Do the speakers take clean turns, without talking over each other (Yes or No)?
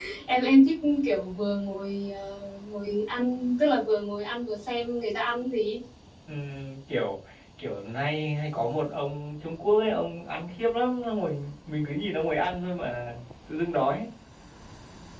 Yes